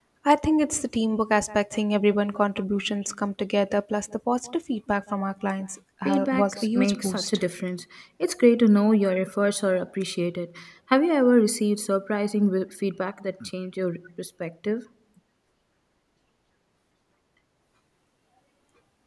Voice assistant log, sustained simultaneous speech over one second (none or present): present